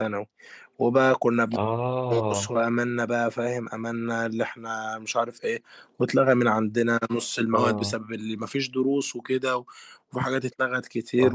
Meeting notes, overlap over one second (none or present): none